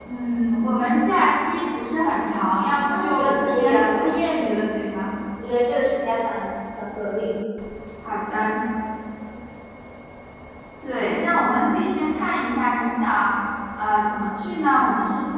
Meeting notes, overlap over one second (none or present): present